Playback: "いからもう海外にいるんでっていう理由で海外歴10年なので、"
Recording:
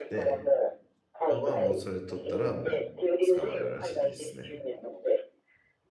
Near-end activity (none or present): present